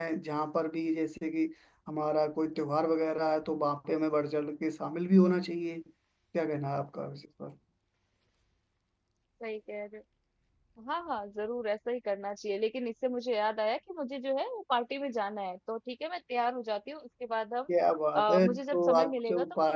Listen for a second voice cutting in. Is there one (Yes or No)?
Yes